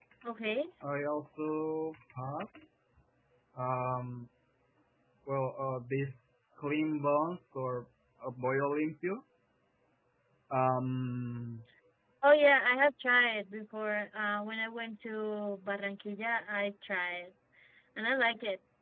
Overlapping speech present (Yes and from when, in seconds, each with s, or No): No